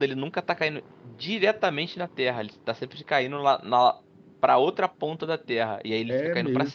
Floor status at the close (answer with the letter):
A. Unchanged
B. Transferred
B